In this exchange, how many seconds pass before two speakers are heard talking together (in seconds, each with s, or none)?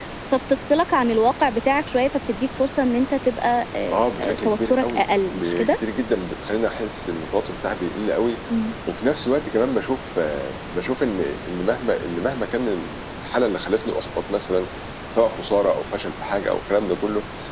4.4 s